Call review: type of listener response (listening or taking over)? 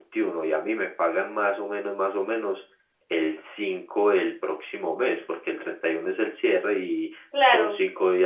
listening